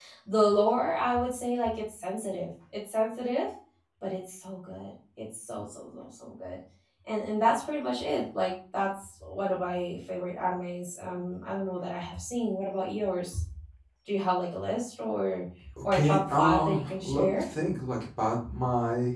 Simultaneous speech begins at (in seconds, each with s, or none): 15.9 s